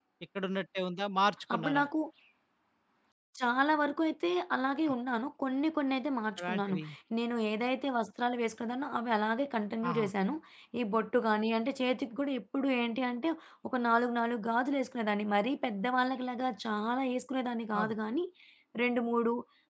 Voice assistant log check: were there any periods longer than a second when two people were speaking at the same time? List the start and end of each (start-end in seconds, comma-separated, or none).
none